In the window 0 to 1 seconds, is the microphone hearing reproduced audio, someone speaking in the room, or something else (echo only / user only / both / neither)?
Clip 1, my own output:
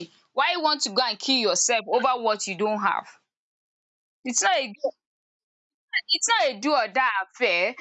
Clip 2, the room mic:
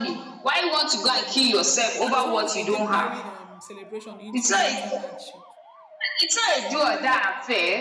echo only